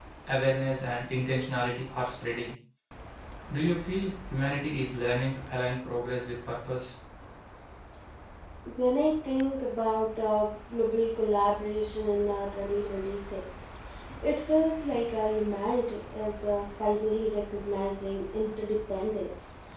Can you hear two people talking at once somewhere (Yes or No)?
No